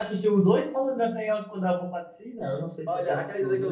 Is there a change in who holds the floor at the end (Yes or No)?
Yes